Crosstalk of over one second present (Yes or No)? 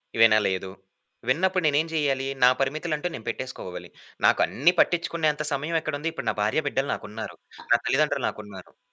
No